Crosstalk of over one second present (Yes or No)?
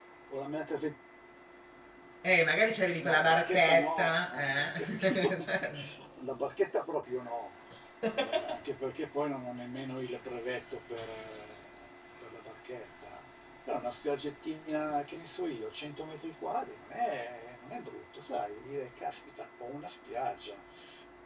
Yes